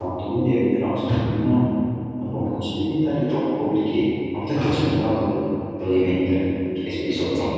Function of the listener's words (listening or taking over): listening